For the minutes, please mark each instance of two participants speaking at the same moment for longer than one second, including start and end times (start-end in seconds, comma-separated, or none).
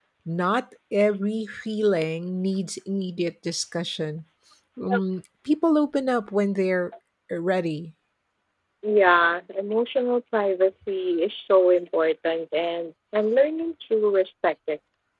none